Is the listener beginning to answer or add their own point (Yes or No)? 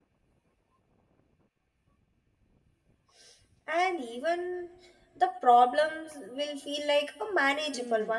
Yes